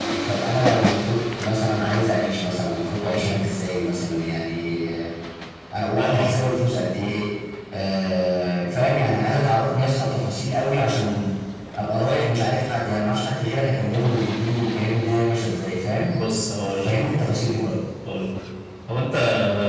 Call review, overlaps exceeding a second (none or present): none